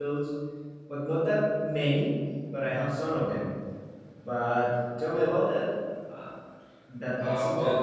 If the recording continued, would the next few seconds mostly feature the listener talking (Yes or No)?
Yes